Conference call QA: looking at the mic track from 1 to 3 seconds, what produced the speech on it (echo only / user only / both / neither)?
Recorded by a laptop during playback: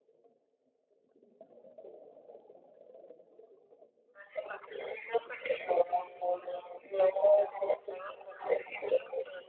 neither